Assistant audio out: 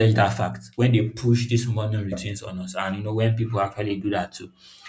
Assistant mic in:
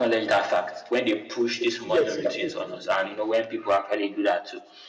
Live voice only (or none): Tim, yeah, Tim Cook